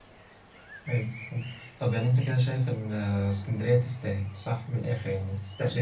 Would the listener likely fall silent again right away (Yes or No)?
No